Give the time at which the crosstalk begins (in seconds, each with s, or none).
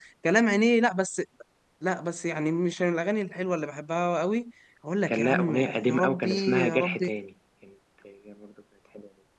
5.1 s